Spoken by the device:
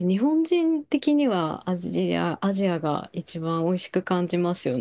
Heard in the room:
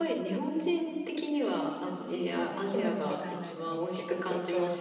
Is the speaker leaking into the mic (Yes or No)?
Yes